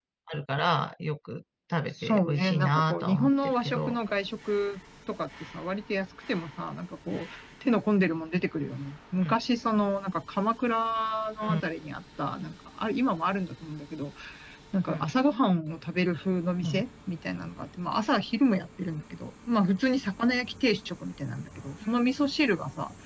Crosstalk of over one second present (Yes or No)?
Yes